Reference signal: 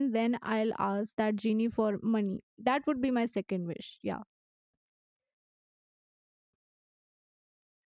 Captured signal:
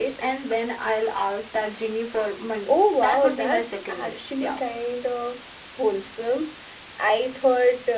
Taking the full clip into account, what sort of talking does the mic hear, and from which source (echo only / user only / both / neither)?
both